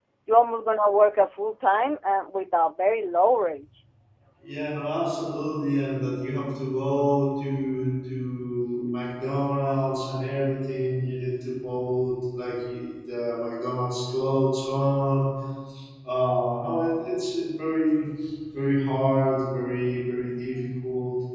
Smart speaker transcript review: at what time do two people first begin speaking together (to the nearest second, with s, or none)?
none